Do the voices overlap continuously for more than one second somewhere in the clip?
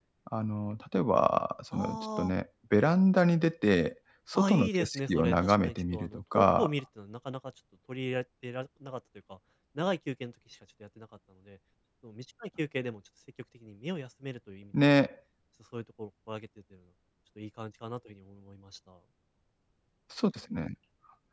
Yes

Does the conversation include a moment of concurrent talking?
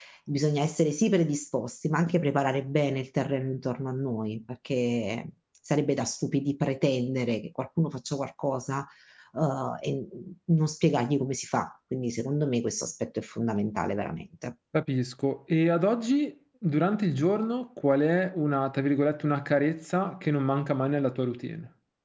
No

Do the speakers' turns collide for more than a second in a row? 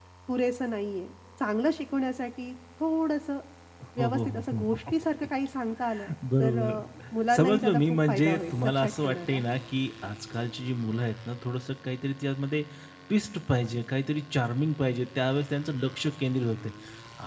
Yes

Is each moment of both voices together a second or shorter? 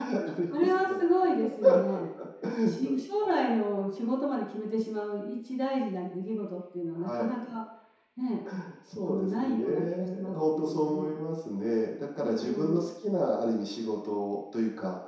No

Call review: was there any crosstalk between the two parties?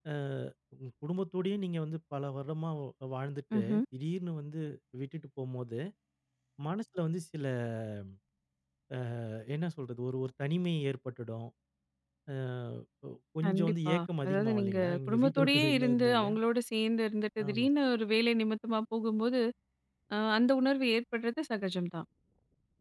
Yes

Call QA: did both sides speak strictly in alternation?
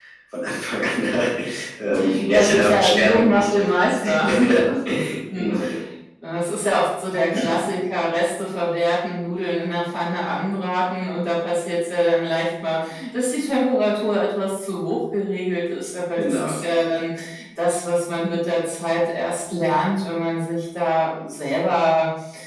No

